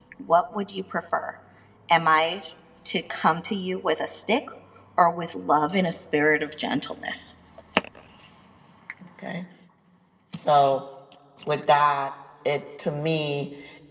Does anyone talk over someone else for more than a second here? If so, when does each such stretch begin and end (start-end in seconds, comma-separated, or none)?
none